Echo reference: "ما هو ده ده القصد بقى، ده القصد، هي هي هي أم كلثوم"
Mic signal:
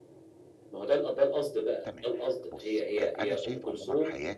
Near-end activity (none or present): present